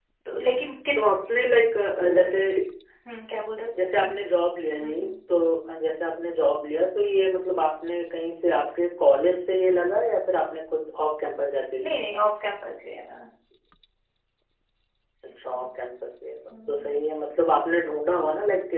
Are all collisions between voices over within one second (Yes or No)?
Yes